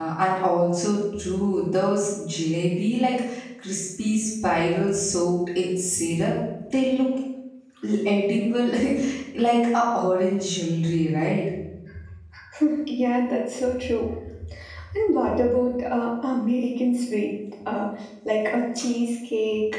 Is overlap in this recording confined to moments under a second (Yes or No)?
Yes